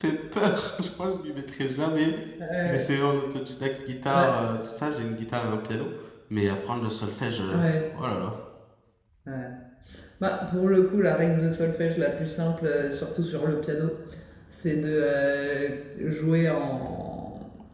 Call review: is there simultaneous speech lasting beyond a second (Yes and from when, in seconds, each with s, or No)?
No